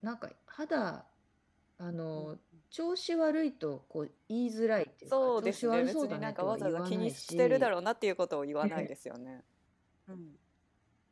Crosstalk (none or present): present